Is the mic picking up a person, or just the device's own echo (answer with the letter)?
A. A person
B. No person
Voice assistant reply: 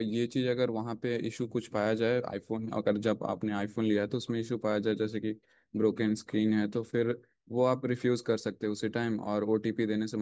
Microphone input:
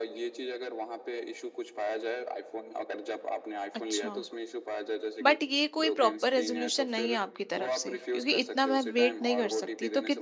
A